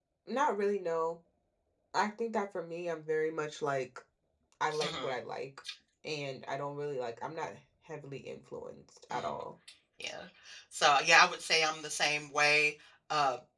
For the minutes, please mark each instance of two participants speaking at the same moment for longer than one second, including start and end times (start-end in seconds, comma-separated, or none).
none